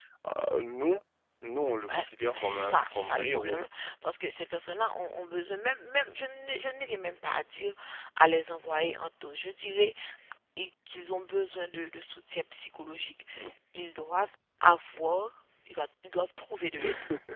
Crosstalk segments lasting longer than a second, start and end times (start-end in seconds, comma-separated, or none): 1.9-3.6